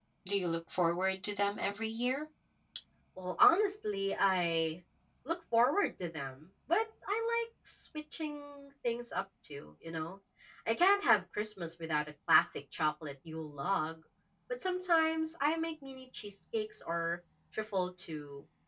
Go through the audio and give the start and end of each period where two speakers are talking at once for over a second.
none

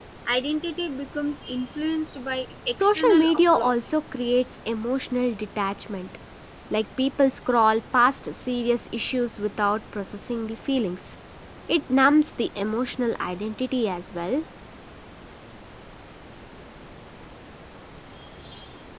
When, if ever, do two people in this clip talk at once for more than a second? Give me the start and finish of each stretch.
2.7-3.9

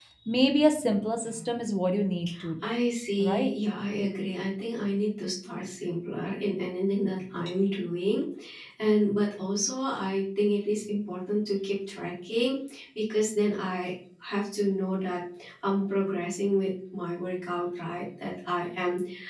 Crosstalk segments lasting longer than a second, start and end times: none

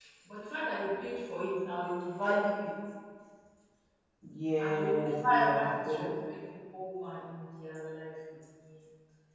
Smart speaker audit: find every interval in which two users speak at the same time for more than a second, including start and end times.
4.6-6.0

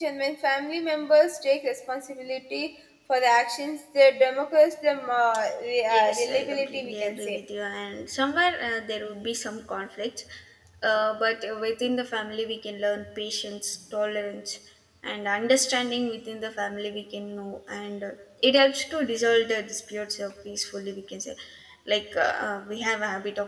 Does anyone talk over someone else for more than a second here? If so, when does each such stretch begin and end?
5.9-7.4

